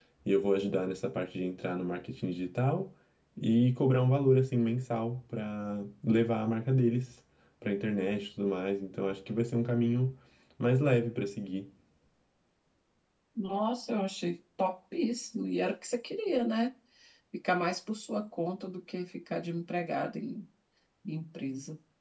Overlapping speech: No

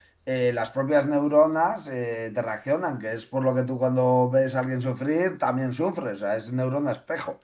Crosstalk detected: No

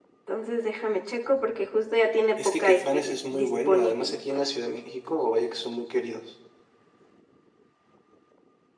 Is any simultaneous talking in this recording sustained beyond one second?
Yes, from 2.4 s

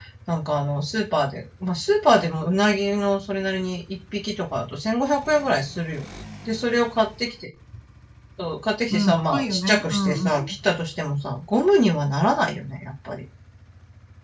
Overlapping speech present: Yes, from 8.9 s

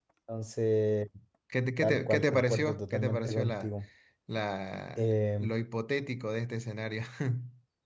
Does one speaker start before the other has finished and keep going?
Yes, from 1.8 s

